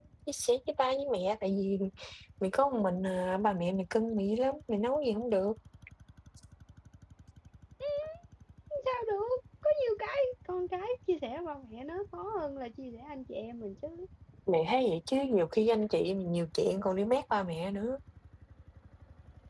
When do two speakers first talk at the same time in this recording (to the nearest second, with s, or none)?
none